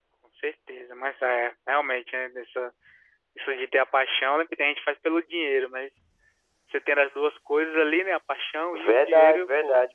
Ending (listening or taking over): taking over